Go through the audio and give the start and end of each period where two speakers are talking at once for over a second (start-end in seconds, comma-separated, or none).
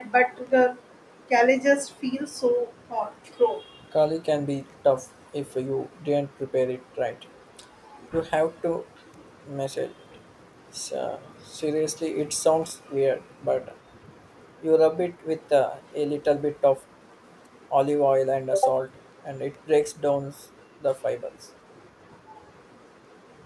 none